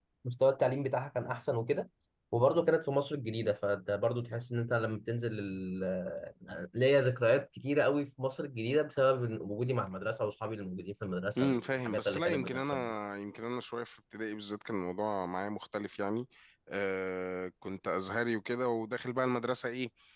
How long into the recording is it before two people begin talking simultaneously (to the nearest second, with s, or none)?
11 s